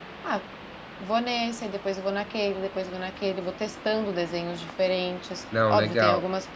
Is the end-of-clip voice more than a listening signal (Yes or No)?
No